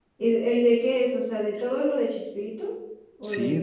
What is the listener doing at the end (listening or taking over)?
taking over